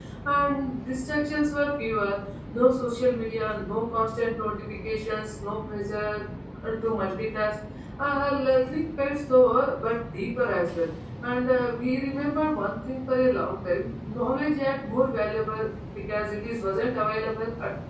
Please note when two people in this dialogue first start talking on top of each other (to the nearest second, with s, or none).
none